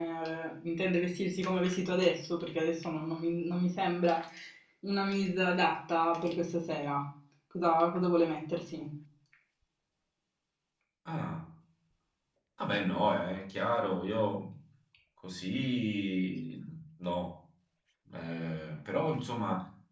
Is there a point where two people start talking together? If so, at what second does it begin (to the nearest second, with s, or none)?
none